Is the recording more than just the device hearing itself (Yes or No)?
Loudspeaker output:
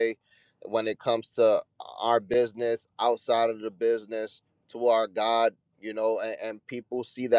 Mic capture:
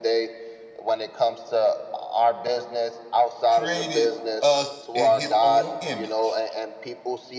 Yes